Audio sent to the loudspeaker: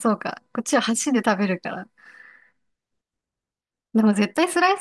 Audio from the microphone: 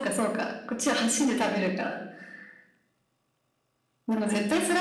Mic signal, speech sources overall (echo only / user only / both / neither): echo only